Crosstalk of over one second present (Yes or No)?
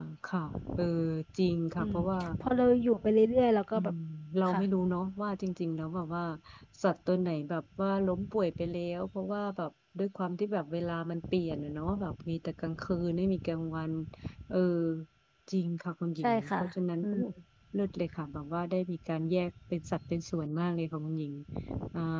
No